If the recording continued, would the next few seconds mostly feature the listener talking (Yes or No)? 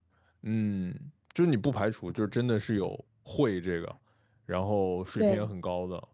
No